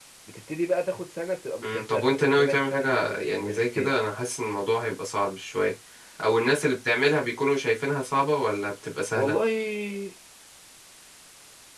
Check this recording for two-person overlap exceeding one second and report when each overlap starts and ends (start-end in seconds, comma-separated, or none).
1.6-3.9